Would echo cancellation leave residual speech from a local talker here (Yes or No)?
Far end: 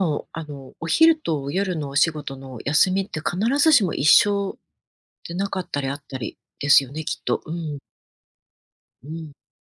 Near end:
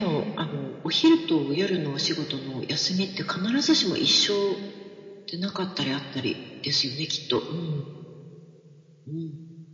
No